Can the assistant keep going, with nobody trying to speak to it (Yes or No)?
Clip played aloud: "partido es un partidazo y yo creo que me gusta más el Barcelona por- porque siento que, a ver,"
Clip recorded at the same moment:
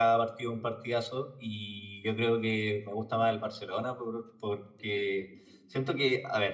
Yes